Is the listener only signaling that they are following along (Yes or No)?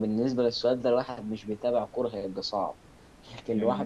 Yes